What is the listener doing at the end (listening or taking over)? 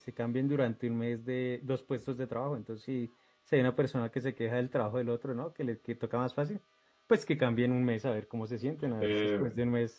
listening